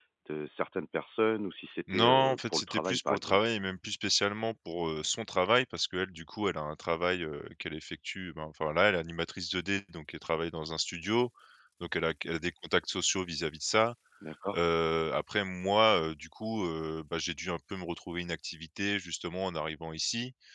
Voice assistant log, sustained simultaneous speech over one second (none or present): present